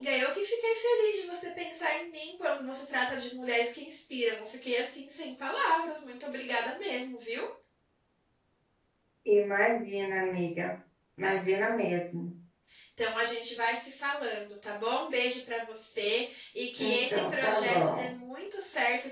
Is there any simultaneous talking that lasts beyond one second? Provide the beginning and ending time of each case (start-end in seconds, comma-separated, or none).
16.8-18.1